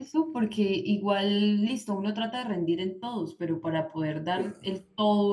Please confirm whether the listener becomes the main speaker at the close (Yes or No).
No